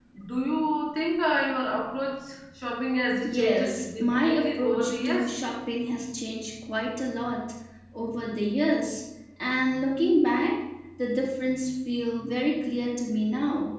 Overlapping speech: Yes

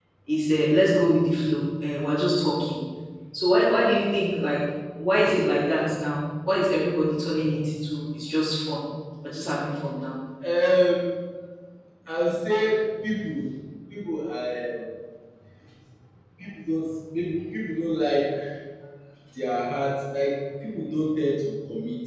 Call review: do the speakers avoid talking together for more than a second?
Yes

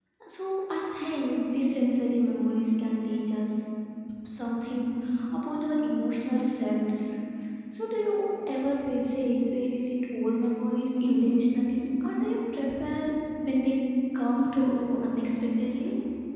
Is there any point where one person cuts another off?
No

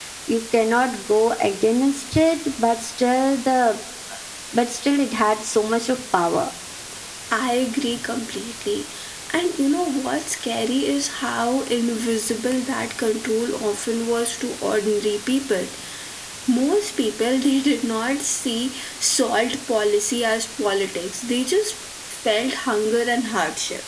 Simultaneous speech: No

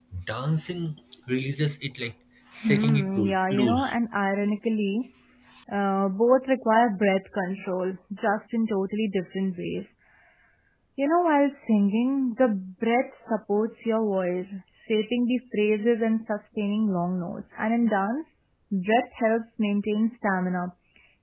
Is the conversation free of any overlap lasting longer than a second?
No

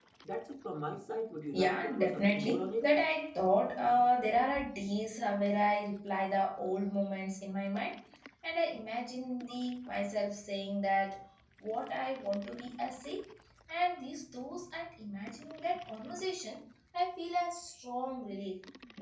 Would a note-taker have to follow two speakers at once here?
Yes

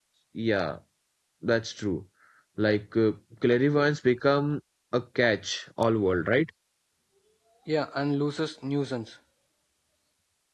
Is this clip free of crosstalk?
Yes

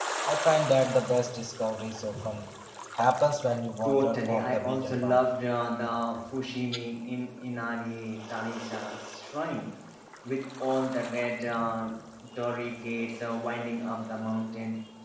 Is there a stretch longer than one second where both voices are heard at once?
Yes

